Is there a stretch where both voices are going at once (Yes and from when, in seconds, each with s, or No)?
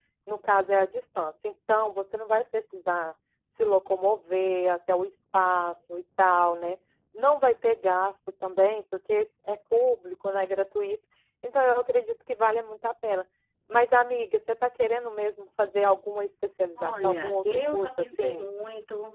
Yes, from 16.8 s